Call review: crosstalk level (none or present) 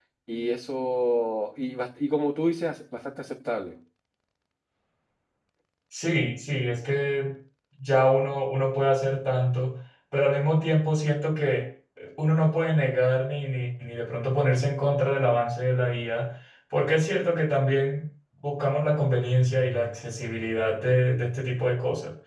none